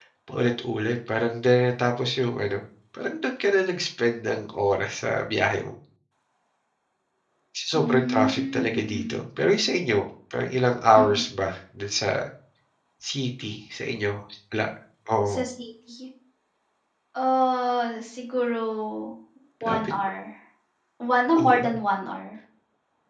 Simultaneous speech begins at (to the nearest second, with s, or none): 8 s